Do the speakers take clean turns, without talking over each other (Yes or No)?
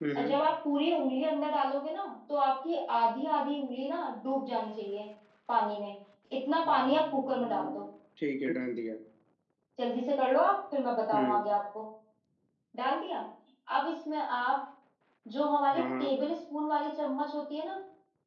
No